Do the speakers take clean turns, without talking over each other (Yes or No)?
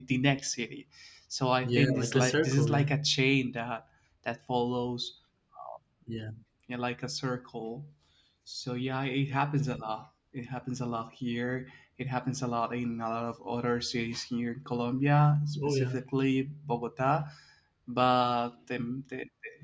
No